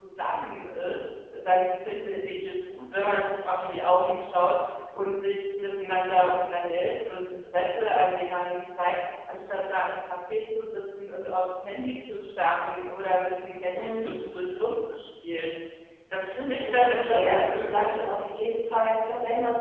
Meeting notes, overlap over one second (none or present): present